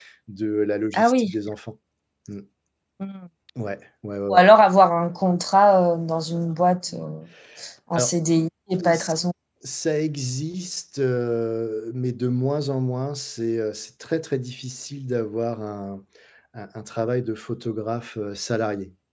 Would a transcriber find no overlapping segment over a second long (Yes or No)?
Yes